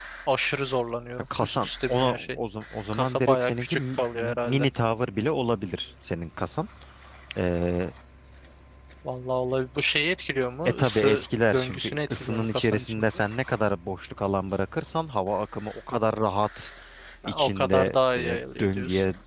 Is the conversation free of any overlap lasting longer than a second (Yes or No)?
No